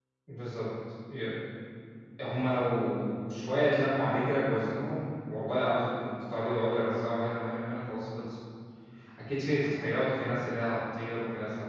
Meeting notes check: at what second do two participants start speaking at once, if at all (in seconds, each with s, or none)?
none